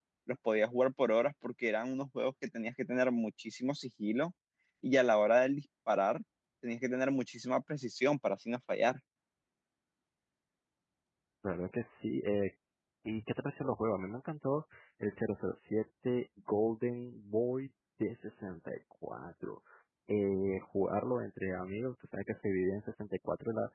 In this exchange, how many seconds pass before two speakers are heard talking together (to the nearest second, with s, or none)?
none